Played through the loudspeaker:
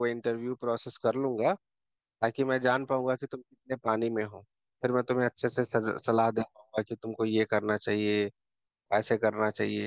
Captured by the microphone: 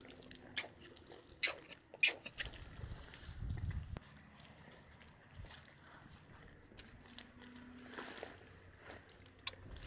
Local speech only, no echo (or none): none